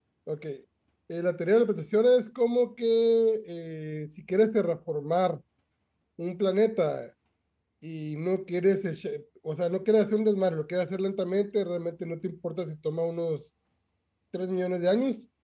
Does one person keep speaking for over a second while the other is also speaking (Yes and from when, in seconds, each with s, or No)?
No